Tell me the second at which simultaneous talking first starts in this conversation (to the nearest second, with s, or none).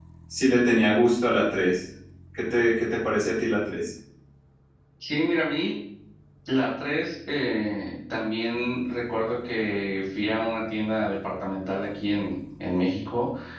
none